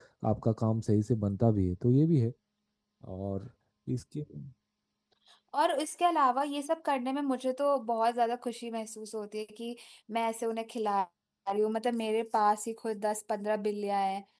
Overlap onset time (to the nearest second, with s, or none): none